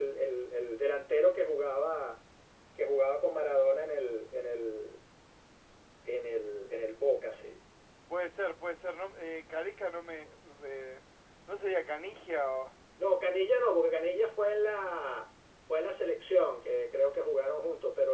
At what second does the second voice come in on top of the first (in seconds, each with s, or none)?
none